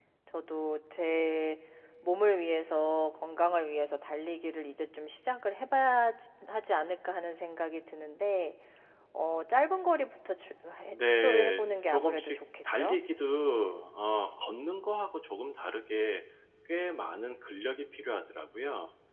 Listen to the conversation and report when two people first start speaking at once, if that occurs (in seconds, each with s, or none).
10.9 s